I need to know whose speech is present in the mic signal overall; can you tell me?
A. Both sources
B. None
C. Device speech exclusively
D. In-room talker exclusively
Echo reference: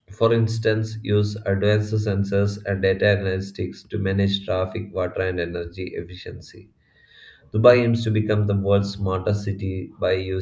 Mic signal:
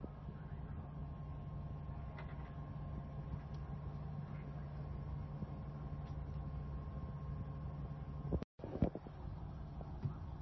B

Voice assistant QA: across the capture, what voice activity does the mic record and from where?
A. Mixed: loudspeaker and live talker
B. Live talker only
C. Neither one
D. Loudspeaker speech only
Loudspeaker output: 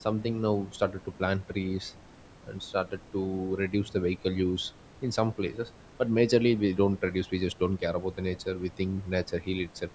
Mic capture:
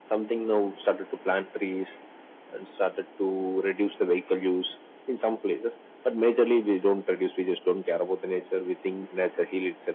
D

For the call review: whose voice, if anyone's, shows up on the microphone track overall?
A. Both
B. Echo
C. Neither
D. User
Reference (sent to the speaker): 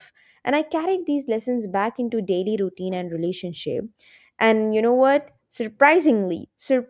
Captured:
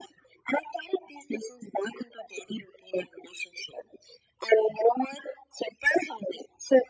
B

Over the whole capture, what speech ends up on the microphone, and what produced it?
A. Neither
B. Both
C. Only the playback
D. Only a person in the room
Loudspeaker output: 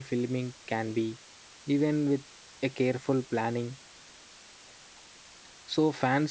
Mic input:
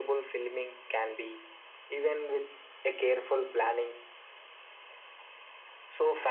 C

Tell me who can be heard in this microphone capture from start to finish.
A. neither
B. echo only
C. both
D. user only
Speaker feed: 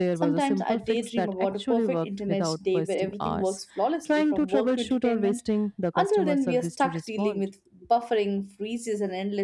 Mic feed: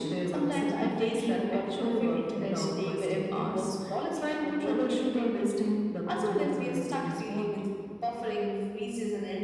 B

